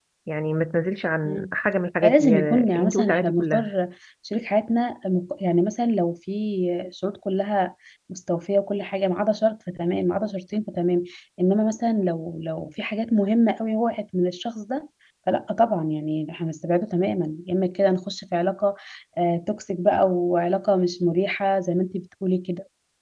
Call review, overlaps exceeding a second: present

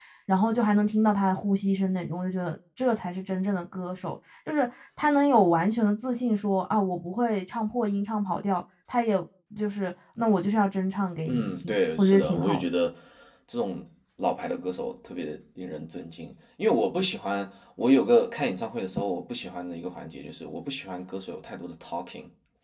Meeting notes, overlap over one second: present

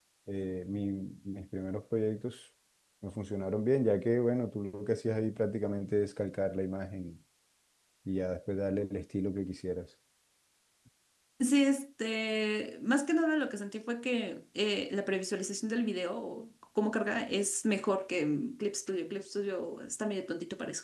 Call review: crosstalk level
none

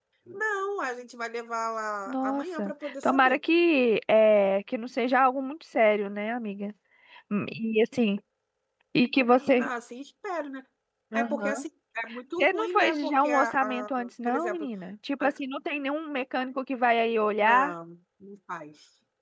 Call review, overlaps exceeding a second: present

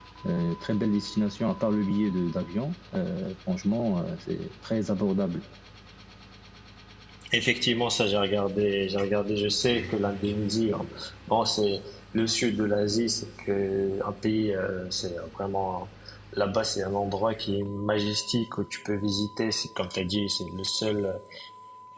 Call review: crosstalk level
none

